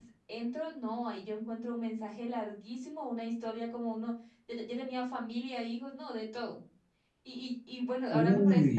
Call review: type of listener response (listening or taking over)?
listening